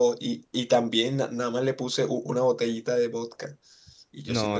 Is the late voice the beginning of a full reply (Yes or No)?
Yes